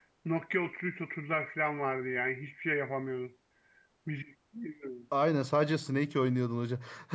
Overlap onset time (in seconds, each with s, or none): none